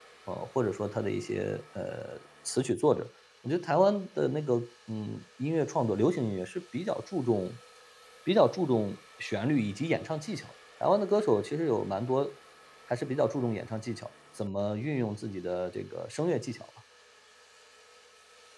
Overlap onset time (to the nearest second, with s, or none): none